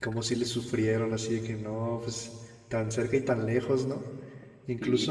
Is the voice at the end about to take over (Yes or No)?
Yes